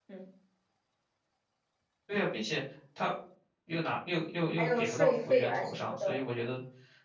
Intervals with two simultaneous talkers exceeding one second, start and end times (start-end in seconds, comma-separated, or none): 4.6-6.2